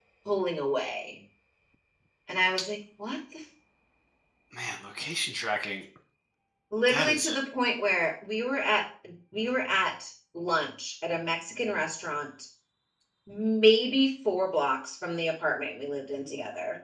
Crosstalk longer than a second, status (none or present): none